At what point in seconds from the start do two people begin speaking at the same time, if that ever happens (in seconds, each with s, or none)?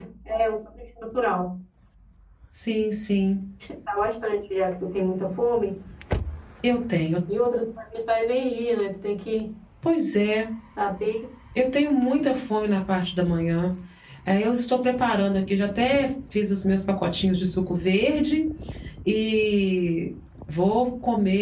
none